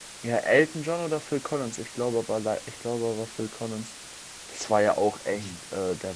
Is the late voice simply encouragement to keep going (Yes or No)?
Yes